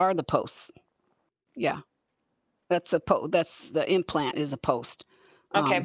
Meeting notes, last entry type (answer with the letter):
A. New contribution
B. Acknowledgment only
A